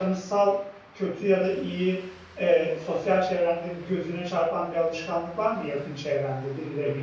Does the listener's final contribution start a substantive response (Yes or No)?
Yes